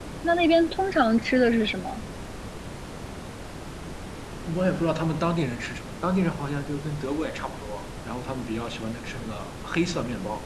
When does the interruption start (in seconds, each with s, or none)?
none